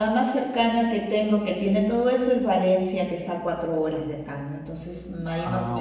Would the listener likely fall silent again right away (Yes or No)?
Yes